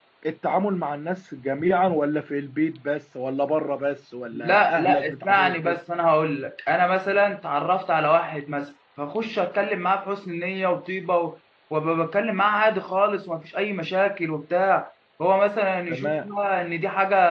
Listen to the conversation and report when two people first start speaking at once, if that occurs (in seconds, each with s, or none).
4.3 s